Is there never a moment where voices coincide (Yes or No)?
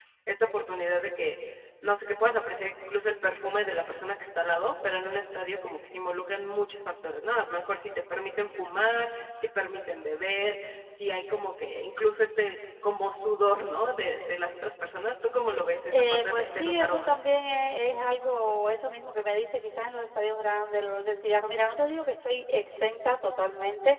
No